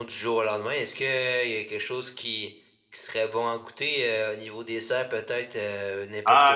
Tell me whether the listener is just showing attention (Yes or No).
No